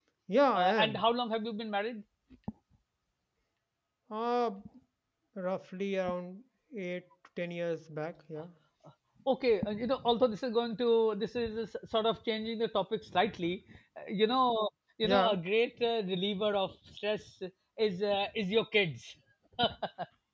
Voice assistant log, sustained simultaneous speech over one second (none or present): none